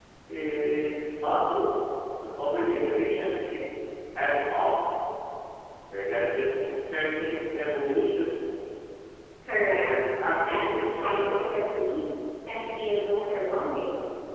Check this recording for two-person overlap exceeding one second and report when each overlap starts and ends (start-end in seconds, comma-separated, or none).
10.4-11.6